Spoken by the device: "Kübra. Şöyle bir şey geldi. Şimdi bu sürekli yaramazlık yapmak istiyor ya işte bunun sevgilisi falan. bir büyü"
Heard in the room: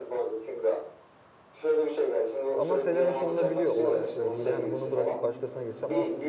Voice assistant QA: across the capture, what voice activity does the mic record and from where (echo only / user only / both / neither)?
both